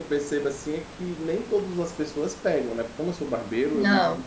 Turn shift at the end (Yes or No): No